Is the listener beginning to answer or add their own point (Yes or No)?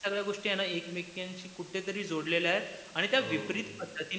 No